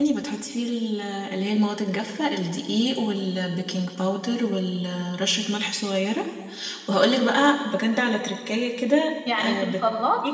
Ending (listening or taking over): taking over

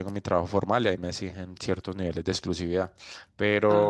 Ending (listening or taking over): listening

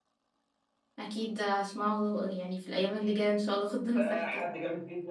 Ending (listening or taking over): taking over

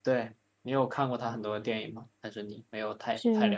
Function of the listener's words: taking over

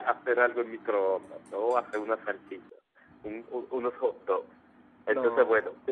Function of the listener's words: listening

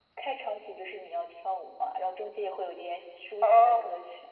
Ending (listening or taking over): taking over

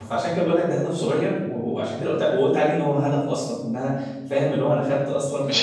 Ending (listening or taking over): listening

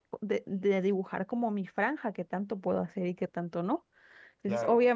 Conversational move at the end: listening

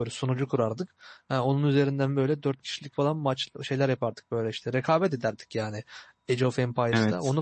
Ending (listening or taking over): listening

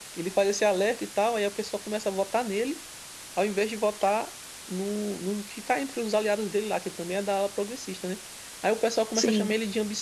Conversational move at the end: listening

